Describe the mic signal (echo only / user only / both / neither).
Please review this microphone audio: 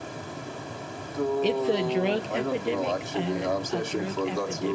both